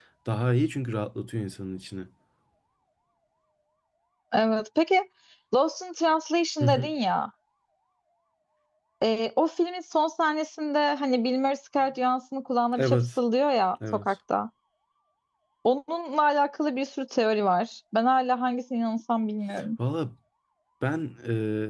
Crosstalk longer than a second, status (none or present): none